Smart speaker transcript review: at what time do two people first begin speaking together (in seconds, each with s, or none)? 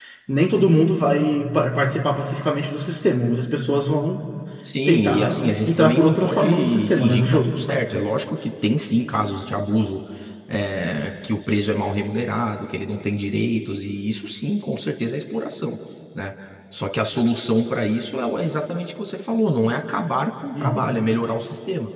4.8 s